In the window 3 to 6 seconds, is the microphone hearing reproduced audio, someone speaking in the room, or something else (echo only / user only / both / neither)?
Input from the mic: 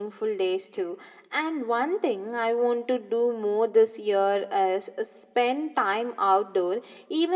echo only